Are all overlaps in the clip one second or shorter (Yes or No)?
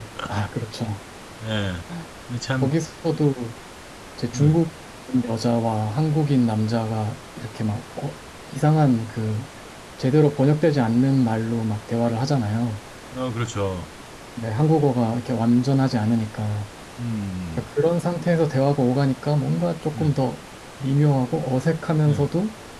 Yes